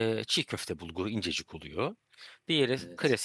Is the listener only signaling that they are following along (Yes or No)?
Yes